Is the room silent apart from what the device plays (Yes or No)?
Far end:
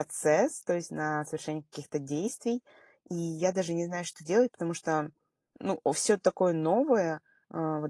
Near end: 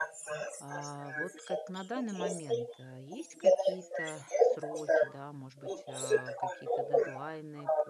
No